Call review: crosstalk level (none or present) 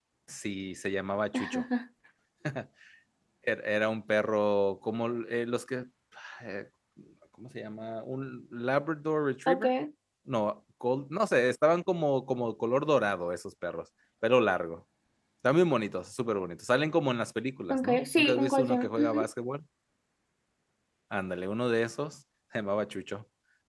present